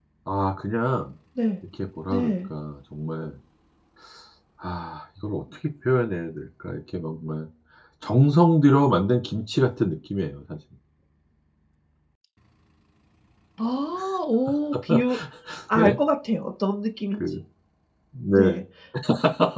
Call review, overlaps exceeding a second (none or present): none